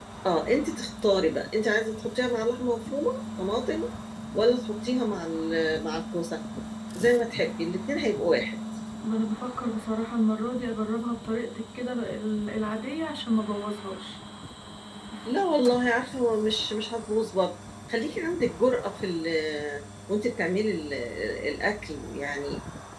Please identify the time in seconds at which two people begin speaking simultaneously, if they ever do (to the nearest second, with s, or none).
none